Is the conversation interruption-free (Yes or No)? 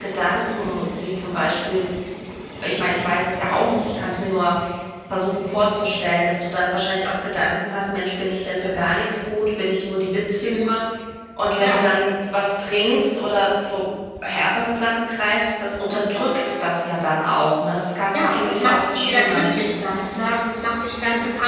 No